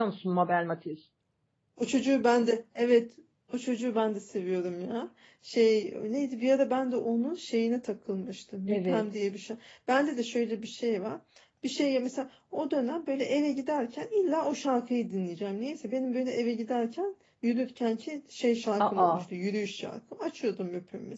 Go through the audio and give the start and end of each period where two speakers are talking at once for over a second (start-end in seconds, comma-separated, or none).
none